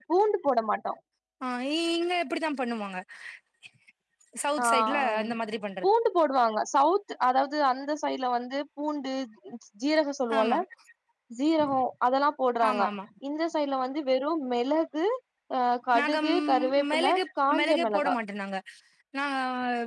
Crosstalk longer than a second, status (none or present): present